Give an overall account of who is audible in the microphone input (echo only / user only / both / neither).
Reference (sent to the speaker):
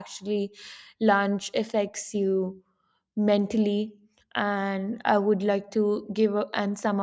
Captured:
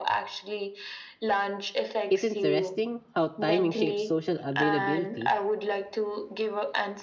both